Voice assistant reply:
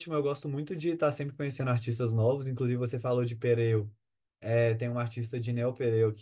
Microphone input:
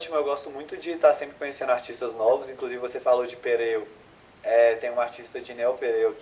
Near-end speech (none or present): none